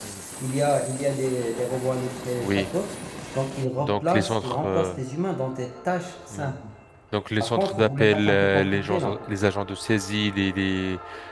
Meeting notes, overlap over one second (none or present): present